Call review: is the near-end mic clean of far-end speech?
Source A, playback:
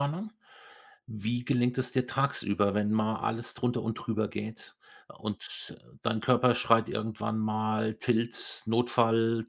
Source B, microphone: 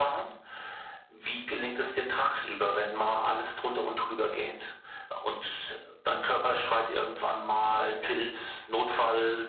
No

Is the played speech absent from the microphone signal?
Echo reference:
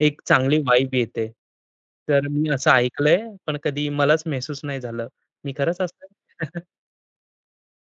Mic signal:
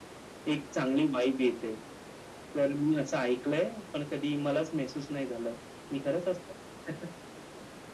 No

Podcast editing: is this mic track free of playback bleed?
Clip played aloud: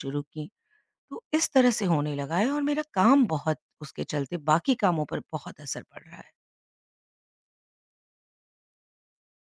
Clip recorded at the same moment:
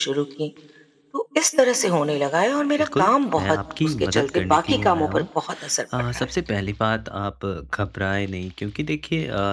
No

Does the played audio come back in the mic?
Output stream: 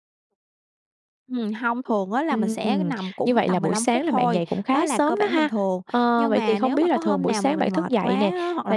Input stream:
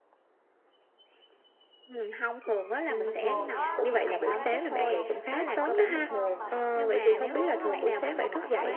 Yes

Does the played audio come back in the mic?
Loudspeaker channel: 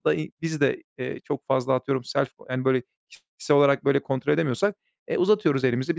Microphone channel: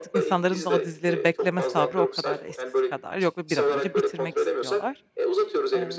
Yes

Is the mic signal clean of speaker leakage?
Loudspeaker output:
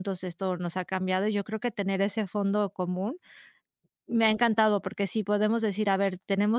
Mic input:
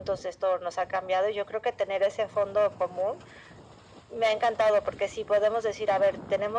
No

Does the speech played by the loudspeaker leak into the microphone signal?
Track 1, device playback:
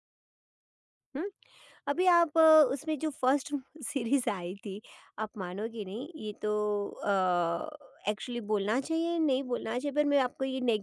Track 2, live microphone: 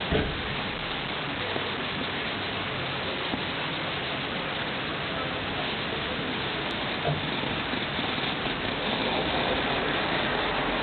No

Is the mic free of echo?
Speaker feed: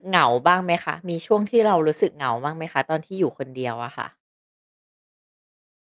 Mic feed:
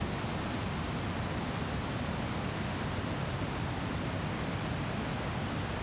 Yes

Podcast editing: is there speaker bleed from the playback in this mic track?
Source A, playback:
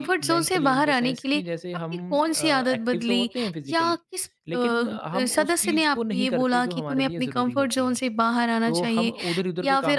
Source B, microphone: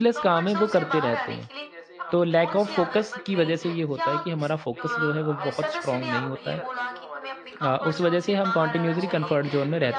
Yes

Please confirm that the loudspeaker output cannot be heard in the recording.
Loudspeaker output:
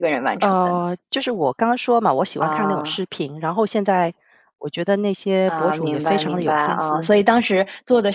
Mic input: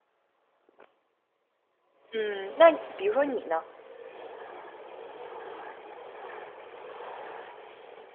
Yes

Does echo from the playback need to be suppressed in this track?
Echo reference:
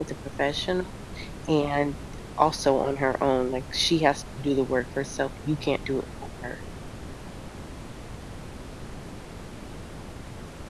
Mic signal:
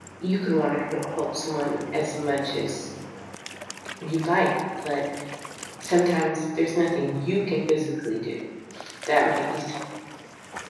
No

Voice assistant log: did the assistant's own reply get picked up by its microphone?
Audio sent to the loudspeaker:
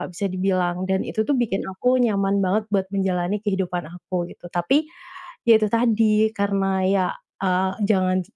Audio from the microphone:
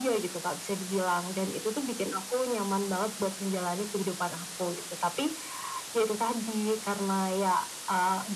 Yes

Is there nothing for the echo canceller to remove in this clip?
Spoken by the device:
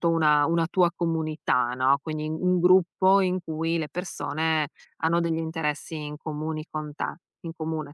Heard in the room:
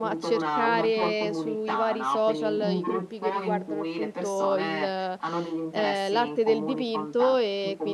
No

